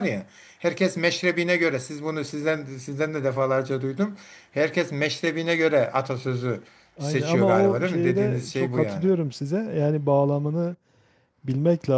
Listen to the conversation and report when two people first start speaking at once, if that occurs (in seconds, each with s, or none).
7.0 s